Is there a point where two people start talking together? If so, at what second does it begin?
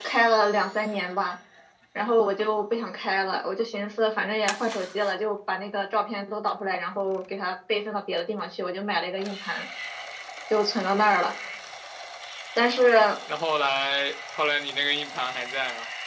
none

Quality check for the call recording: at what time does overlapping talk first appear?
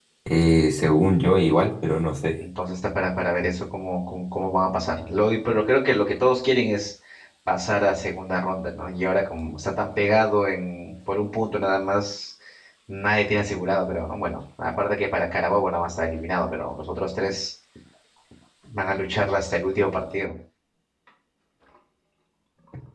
none

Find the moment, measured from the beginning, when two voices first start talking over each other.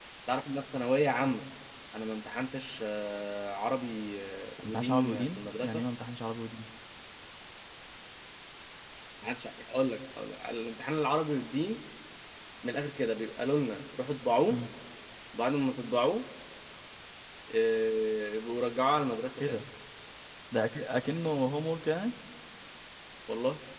4.6 s

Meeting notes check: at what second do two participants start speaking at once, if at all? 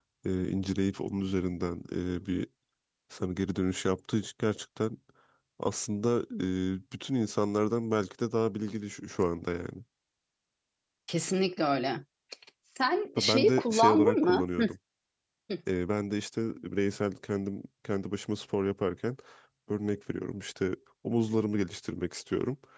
13.2 s

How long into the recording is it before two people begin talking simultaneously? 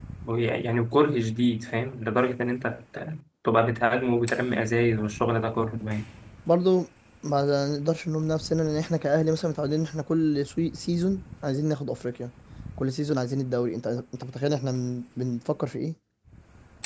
none

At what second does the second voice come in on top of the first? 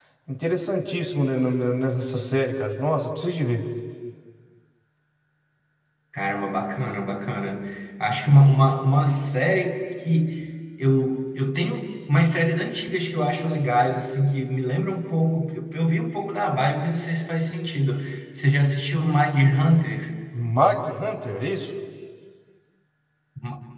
none

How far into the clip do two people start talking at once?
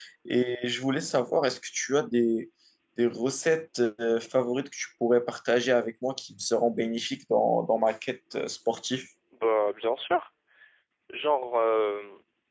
none

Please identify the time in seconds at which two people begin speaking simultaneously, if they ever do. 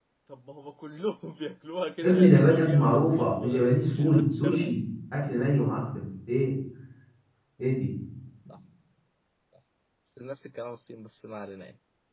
2.0 s

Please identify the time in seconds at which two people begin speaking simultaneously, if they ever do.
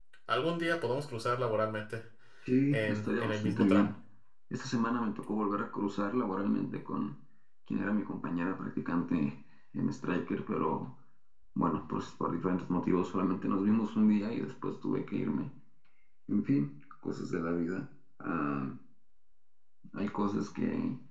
2.7 s

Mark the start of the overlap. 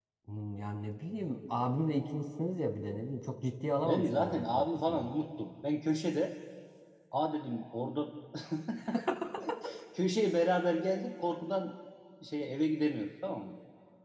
3.8 s

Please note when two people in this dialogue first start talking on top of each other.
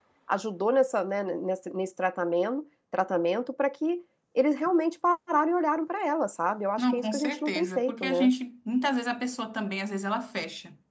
6.8 s

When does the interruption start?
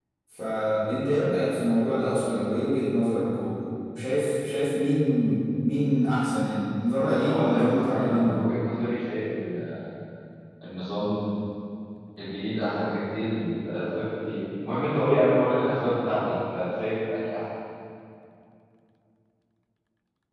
7.0 s

